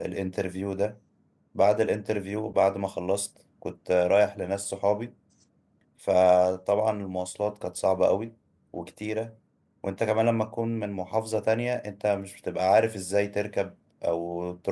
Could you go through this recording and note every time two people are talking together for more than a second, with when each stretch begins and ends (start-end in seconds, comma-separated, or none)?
none